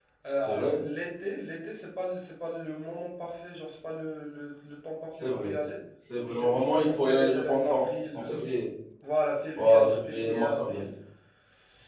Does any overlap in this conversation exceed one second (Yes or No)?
Yes